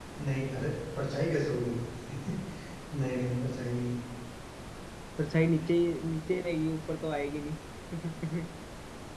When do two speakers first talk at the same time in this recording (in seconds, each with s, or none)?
none